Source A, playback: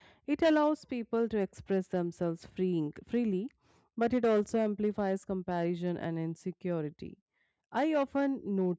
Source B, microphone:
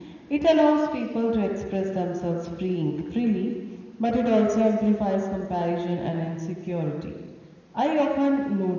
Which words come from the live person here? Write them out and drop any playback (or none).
none